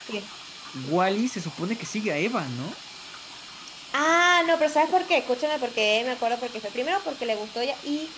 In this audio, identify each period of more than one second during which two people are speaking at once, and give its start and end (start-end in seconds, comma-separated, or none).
none